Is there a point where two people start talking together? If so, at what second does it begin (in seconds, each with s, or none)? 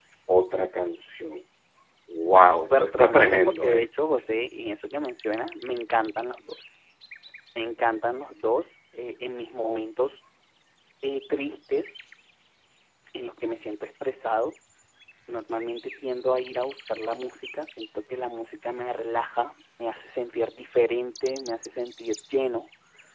2.6 s